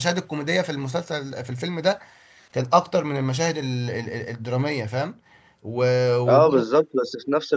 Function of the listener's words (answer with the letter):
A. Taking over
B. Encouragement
A